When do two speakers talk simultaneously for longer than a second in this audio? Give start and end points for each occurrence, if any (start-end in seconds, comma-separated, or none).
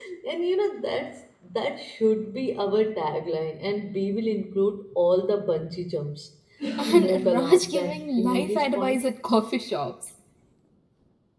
6.9-9.0